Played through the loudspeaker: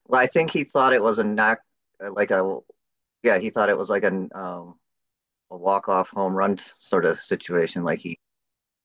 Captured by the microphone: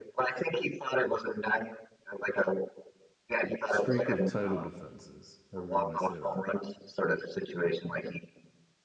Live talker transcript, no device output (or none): streak of title defenses, however you want to say that.